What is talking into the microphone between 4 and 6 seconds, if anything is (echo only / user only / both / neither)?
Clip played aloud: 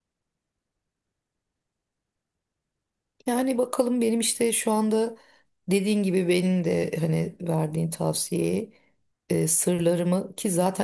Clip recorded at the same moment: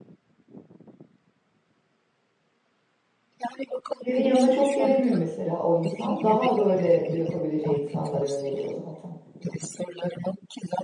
both